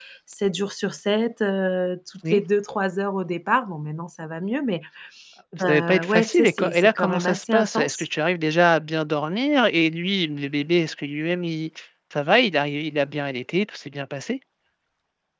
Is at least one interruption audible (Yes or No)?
Yes